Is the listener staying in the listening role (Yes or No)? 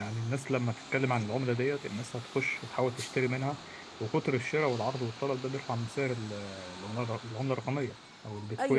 No